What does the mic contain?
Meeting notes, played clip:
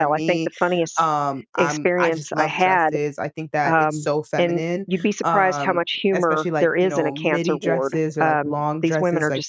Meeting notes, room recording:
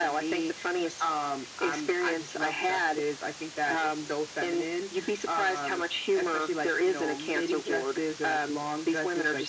echo only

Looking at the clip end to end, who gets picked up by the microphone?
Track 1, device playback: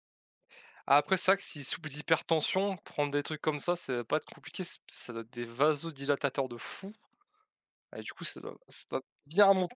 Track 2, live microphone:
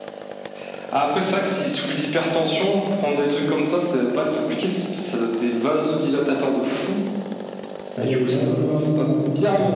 both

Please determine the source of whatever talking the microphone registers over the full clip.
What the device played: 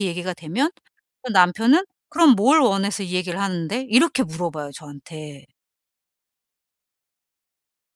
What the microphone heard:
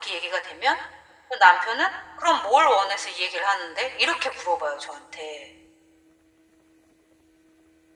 echo only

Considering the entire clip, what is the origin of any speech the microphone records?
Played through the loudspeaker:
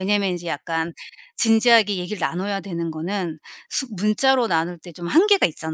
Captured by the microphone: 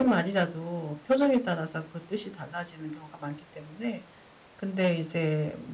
user only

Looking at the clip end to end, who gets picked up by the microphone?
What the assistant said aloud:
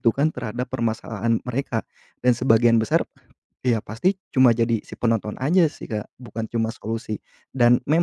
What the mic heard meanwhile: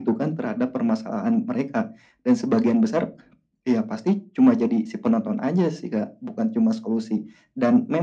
echo only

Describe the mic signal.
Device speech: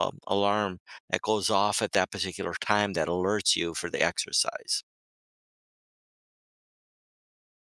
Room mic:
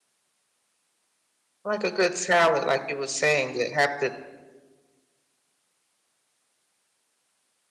user only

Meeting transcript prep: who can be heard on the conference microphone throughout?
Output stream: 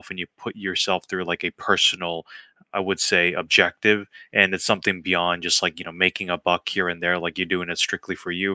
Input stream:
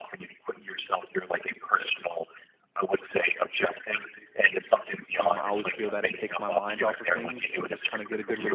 both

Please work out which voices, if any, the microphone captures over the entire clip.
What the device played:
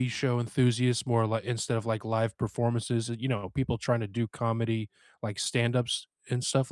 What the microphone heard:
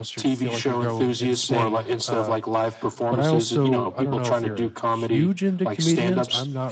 both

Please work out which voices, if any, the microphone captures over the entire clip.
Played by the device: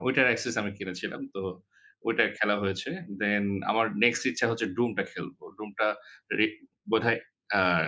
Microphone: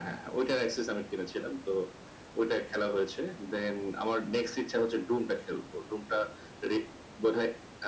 echo only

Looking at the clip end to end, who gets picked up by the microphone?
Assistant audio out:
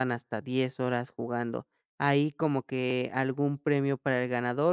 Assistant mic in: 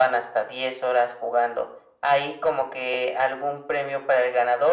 echo only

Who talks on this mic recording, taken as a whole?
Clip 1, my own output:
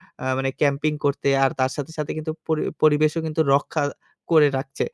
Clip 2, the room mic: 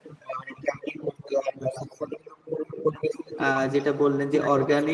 both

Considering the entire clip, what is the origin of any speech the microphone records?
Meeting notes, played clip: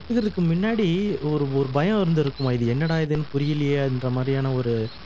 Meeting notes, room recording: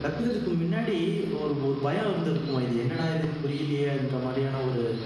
echo only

